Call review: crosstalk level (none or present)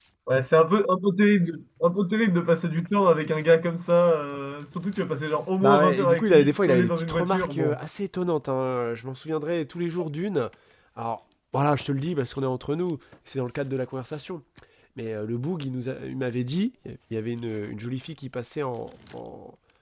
present